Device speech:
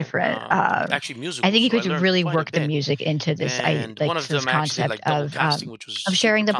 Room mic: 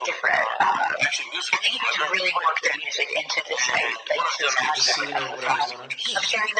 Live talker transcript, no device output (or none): The scene or whatever's going on. Yeah.